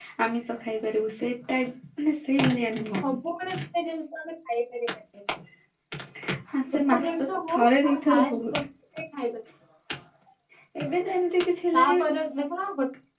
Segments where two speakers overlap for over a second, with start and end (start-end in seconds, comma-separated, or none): 6.8-8.6